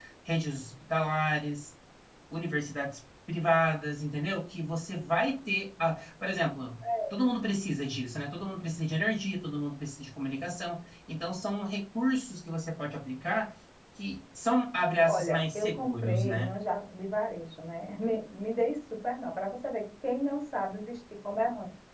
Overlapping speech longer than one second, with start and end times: 15.1-16.5

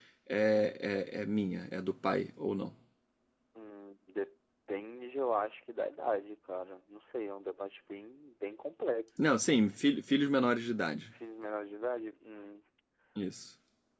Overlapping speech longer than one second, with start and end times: none

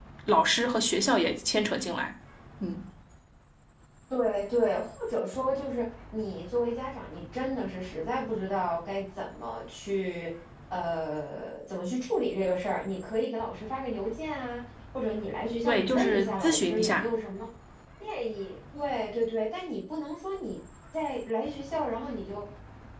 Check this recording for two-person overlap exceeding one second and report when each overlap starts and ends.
15.7-17.1

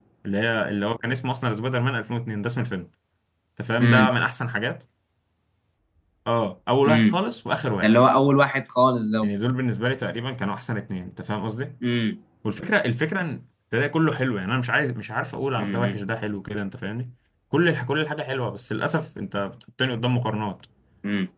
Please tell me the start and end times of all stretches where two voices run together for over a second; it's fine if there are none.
none

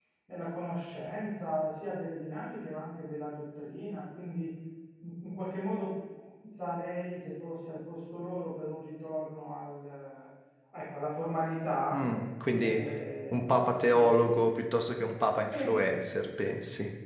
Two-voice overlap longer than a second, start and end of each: none

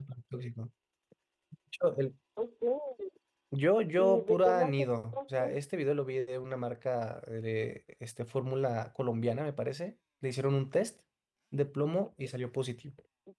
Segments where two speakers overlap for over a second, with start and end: 4.0-5.5

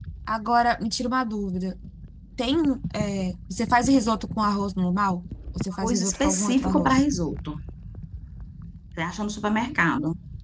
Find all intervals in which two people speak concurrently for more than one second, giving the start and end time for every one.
5.7-7.0

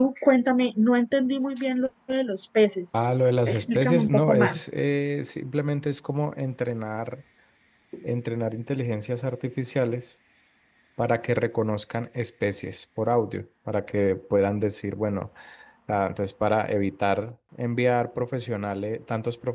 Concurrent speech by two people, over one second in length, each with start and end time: 3.5-4.7

